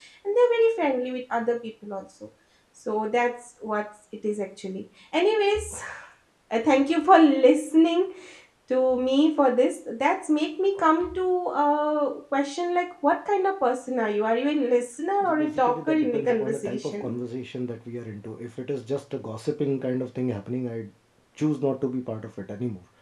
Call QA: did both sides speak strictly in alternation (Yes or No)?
No